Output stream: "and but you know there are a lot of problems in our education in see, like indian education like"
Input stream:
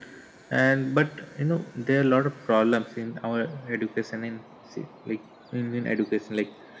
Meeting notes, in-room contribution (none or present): none